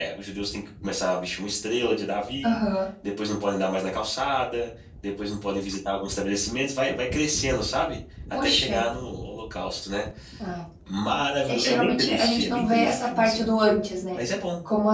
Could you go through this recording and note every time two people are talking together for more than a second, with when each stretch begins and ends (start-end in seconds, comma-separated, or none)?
11.5-13.5